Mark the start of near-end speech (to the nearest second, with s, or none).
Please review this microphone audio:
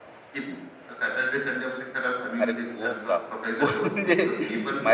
2 s